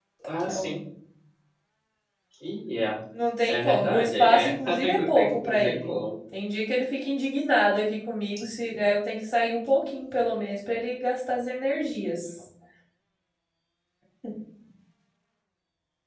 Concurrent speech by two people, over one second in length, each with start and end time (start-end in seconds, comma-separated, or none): 3.5-5.9